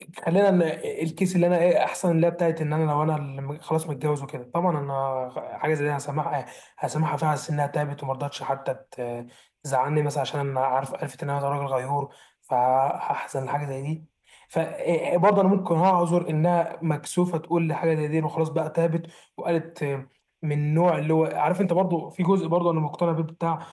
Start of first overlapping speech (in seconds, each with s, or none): none